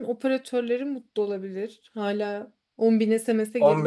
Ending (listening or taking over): taking over